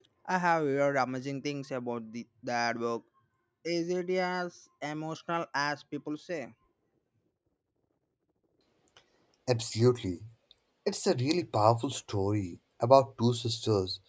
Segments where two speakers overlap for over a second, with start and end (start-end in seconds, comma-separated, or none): none